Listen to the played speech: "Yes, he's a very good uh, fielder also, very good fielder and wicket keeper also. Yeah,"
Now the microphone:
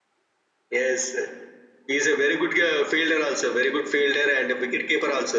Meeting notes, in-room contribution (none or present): none